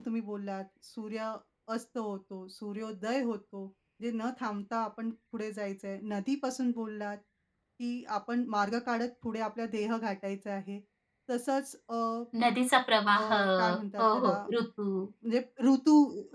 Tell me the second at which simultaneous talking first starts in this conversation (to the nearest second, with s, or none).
13 s